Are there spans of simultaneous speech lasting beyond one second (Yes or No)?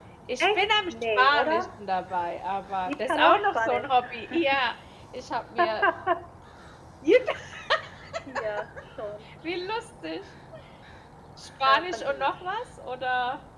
Yes